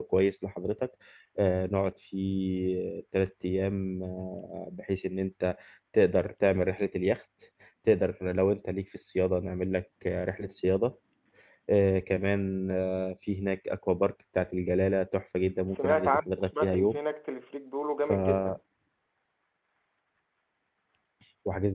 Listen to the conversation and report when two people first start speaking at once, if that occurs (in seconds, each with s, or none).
15.7 s